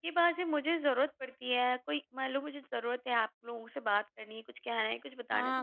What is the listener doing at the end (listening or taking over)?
taking over